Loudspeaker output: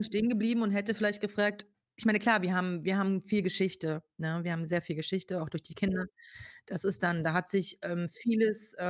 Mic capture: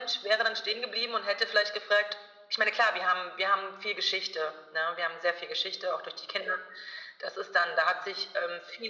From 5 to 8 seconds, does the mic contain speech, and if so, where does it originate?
echo only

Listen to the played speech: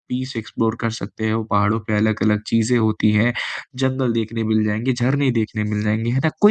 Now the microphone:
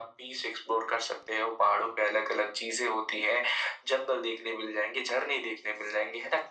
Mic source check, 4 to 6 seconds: echo only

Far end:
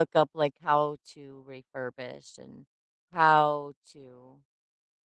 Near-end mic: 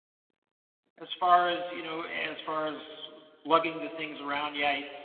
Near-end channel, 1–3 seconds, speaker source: user only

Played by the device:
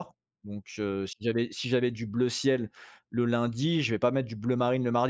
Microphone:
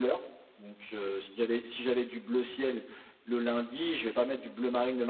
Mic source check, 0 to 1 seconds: echo only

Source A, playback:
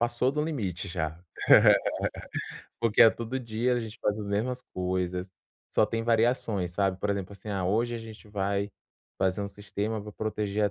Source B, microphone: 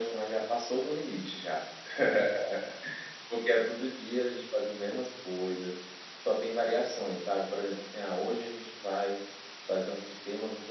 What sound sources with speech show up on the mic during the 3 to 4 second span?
echo only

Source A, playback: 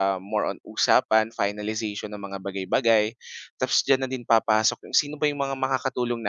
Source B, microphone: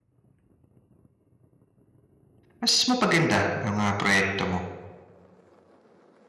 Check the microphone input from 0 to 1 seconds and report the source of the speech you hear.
neither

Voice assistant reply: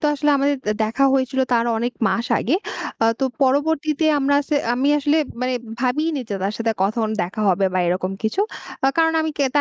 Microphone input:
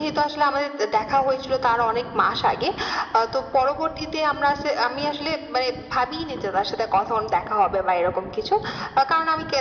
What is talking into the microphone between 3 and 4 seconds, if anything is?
echo only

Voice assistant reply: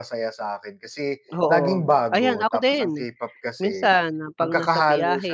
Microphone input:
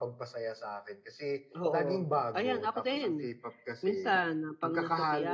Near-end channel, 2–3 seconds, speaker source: echo only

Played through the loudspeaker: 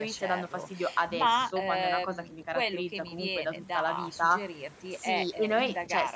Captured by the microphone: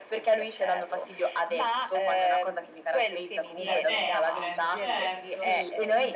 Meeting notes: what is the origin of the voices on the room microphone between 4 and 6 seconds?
both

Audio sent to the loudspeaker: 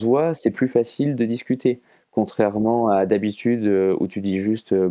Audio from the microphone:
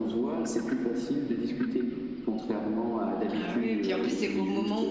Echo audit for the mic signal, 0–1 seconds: echo only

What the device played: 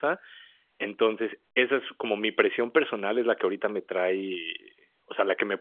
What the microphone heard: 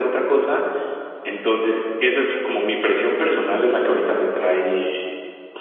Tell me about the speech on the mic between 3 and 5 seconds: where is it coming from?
echo only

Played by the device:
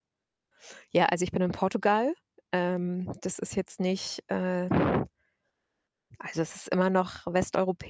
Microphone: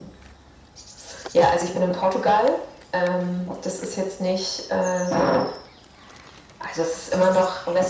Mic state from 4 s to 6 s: echo only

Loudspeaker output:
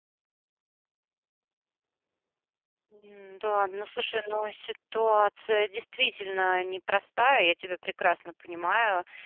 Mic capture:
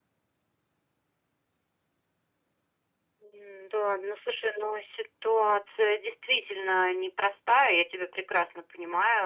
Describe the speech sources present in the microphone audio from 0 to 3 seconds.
neither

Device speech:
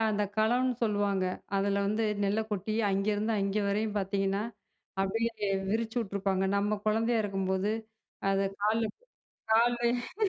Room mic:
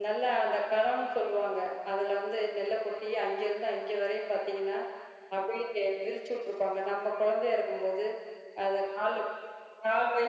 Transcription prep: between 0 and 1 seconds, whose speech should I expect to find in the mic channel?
echo only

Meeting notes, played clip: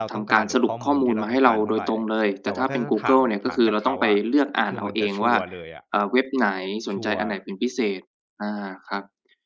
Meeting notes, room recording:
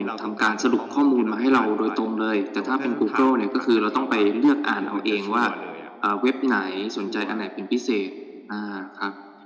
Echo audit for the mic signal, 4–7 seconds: echo only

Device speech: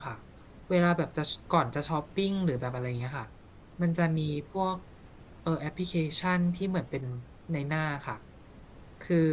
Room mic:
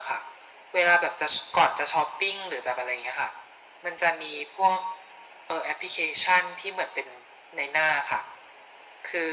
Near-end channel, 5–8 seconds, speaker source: echo only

